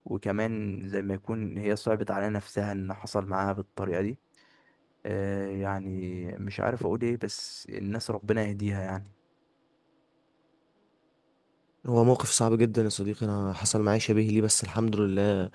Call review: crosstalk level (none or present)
none